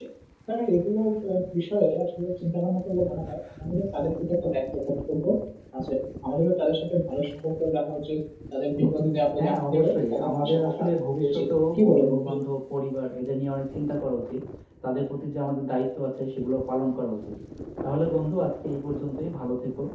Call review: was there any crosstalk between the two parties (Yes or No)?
Yes